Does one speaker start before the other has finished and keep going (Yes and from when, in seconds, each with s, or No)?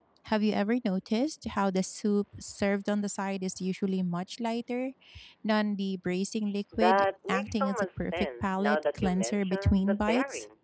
Yes, from 6.7 s